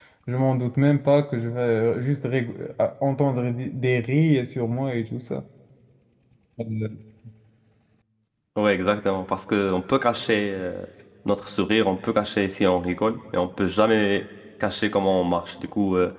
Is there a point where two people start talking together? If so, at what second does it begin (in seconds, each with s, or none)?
none